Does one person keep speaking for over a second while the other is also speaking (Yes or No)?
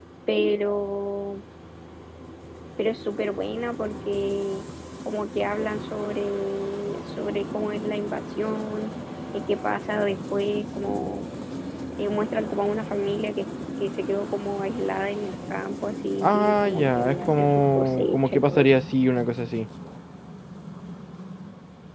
Yes